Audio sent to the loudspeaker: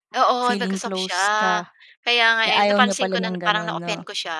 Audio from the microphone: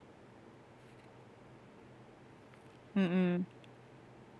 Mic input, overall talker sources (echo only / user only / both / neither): user only